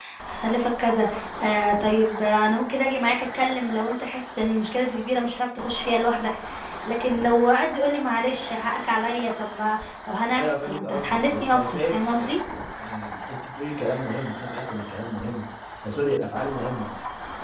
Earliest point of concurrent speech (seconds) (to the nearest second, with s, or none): 10 s